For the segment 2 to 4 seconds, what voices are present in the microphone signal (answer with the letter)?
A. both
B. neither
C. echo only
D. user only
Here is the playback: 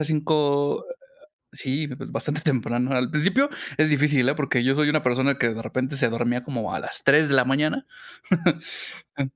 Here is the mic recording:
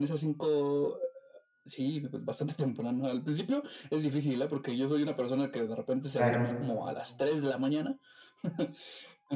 C